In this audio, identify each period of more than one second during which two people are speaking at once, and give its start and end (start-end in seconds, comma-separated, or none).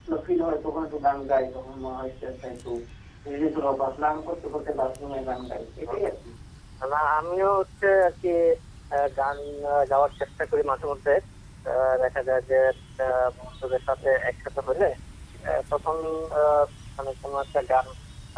none